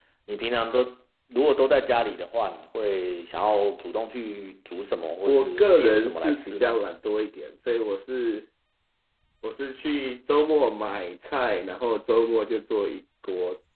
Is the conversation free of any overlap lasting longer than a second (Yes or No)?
No